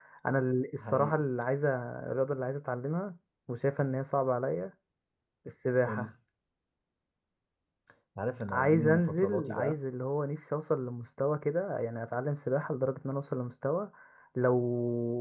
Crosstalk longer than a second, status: present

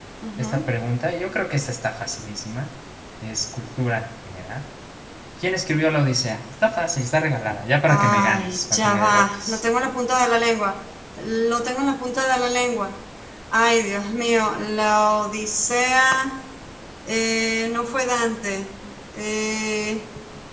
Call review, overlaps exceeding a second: present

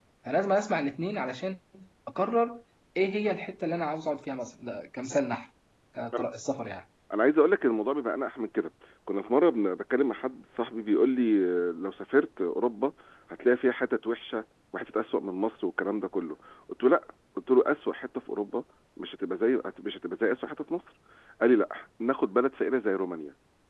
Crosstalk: none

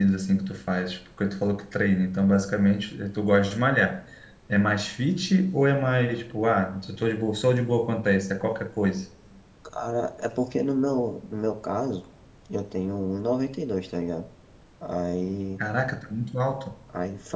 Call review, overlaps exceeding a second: none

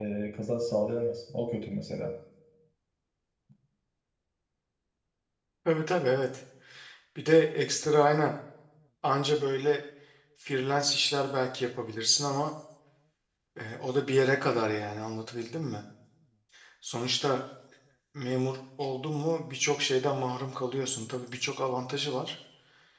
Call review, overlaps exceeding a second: none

